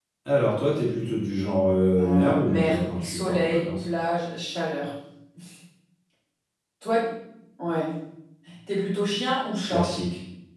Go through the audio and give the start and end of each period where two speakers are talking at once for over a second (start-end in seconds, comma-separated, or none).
2.0-3.8